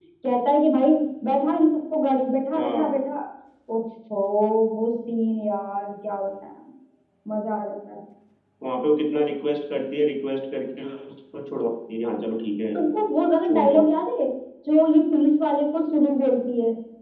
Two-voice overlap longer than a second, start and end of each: none

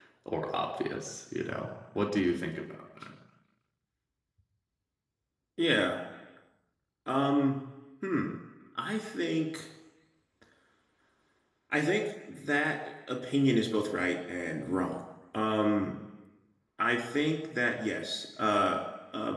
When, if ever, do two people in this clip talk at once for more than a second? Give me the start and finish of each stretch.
none

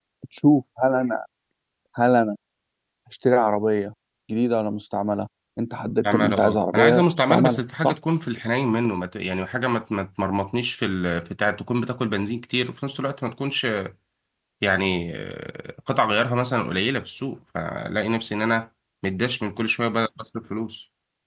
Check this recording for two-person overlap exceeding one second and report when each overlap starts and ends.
6.1-7.9

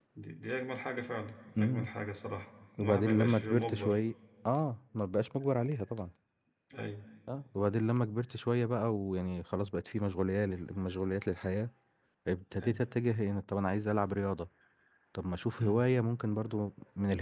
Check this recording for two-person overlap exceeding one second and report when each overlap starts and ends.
2.8-4.0

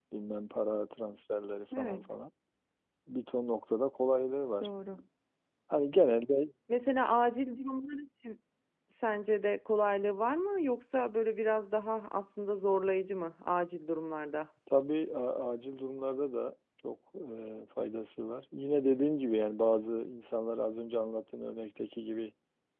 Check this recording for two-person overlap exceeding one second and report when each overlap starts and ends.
none

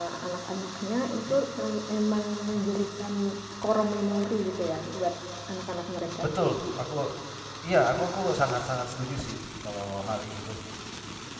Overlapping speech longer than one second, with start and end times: none

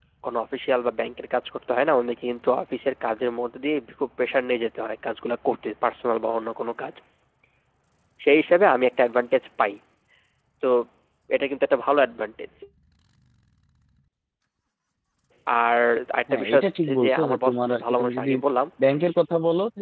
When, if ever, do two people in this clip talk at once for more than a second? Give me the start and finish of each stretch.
16.3-18.3

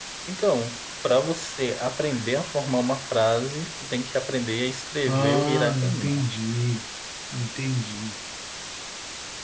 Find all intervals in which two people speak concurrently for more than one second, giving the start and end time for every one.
5.1-6.3

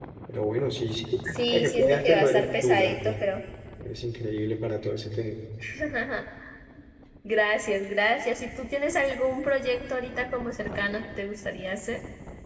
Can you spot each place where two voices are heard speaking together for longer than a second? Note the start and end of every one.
1.5-3.1

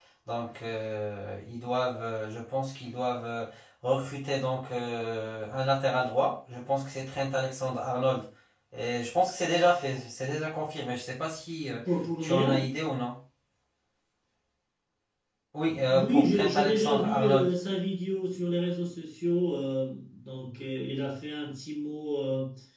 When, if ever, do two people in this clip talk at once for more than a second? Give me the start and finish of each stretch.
15.9-17.5

